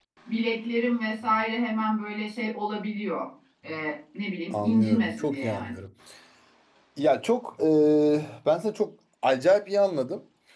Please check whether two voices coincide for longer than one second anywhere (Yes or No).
Yes